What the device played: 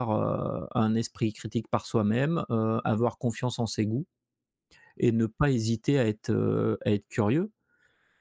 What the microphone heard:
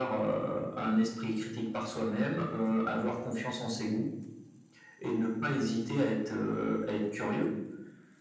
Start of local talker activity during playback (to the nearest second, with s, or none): none